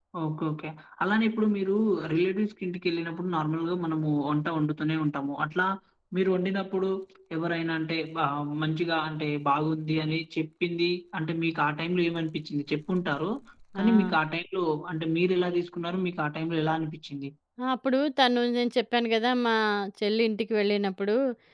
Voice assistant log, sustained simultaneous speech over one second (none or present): none